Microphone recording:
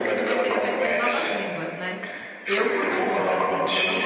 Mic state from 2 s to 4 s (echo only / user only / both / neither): both